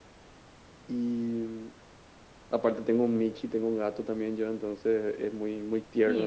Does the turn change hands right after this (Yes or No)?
No